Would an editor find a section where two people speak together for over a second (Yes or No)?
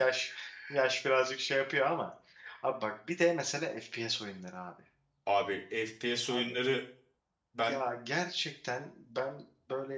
No